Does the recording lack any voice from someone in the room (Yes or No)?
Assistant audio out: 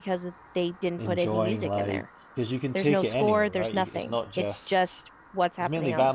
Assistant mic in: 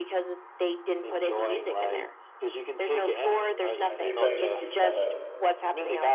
No